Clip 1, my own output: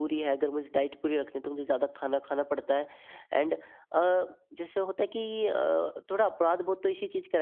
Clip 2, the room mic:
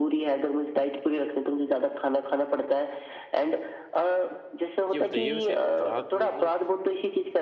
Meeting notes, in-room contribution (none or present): present